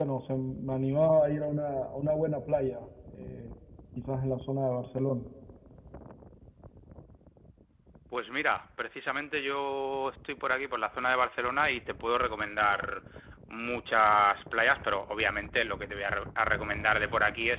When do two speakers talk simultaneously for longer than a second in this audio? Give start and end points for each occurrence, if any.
none

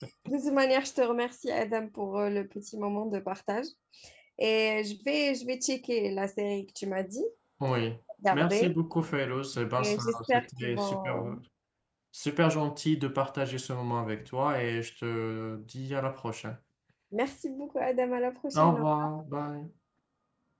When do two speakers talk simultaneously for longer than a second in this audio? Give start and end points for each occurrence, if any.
9.8-11.4

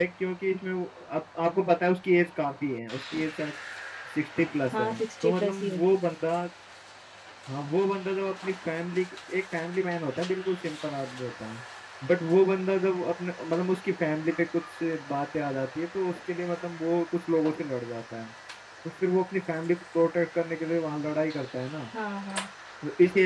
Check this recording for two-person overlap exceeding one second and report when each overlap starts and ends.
4.7-6.0

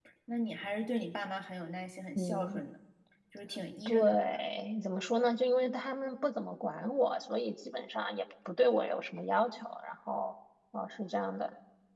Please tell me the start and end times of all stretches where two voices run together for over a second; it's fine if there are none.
none

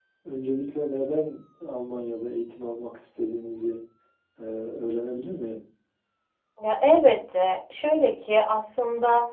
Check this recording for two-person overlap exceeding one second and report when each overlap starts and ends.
none

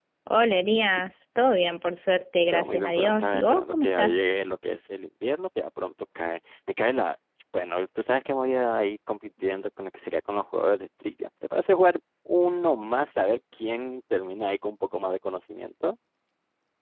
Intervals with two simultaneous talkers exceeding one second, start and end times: 2.5-4.2

